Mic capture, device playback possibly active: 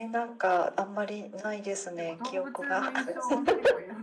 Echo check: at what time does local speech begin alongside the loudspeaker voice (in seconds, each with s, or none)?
1.9 s